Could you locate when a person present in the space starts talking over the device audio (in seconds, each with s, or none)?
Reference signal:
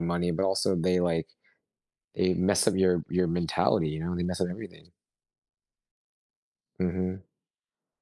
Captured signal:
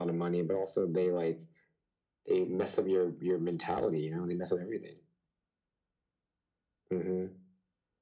none